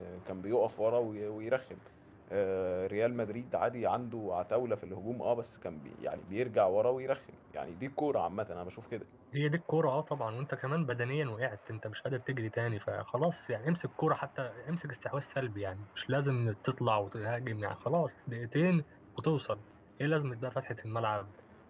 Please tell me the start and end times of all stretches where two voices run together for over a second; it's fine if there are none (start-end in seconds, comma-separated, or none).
none